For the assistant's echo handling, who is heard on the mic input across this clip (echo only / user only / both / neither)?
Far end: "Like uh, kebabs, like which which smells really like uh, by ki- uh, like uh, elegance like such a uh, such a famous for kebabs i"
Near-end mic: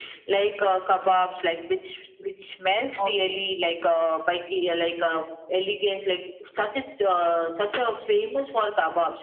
both